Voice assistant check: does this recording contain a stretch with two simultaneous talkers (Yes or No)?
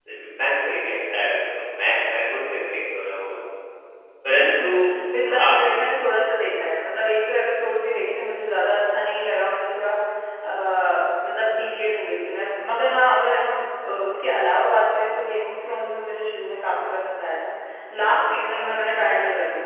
Yes